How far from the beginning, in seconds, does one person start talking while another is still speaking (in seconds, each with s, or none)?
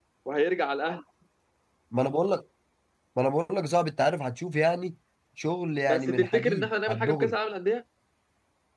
5.8 s